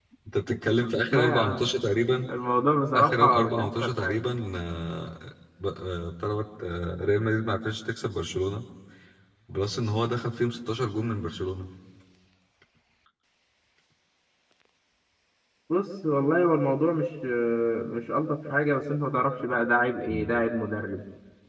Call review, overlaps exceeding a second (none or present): present